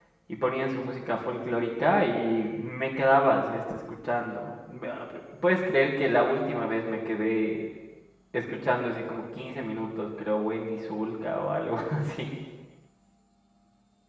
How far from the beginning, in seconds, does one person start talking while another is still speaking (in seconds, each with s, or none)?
none